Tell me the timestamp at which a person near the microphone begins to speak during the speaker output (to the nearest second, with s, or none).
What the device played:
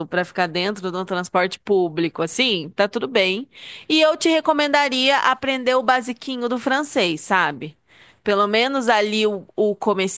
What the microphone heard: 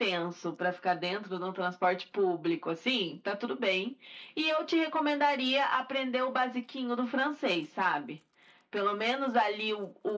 none